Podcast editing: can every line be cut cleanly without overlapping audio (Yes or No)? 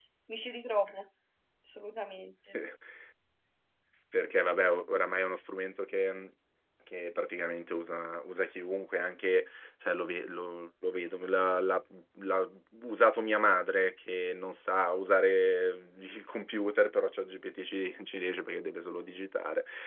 Yes